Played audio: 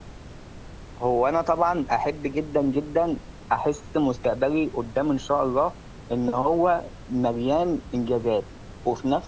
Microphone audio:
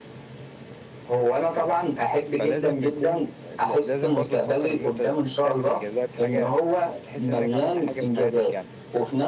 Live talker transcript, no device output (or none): فلازم يكون ل- لازم برضو تفكر ان انت تعمل انجازات حاجه تحس انك عملت حاجه في حياتك يعني